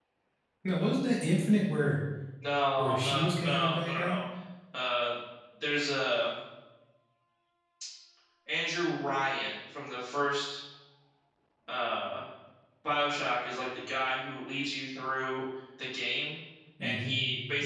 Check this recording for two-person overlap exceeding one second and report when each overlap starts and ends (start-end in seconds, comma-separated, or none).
2.8-4.2